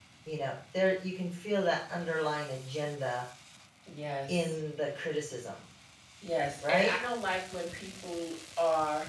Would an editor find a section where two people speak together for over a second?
No

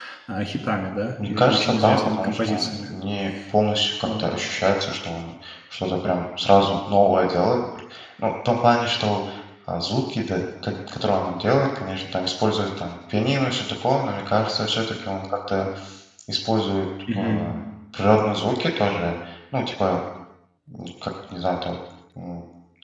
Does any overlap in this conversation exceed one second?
Yes, from 1.4 s

